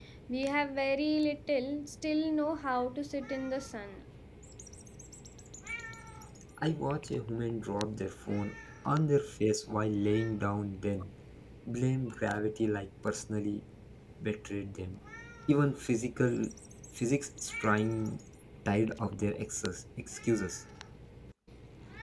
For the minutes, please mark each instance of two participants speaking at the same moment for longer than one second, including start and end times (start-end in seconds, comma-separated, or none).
none